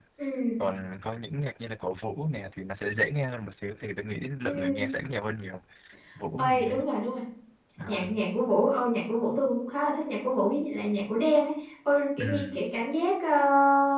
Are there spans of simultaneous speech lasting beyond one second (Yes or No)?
No